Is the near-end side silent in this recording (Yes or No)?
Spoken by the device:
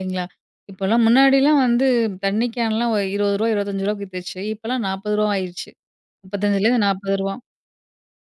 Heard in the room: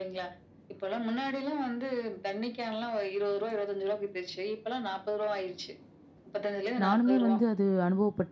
No